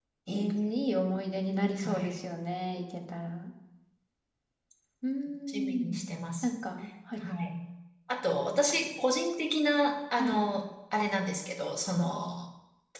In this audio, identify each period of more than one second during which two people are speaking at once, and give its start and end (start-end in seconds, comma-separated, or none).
none